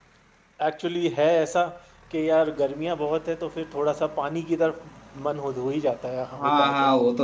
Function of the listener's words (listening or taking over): taking over